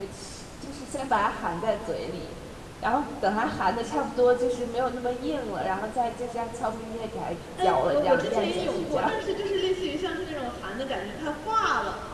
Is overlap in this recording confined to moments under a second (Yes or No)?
No